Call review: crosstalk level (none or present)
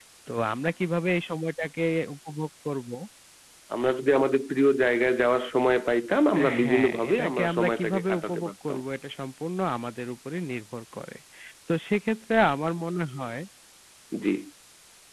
present